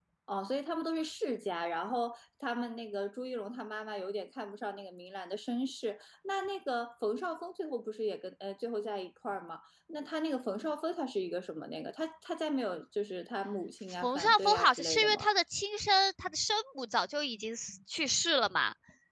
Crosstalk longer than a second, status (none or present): present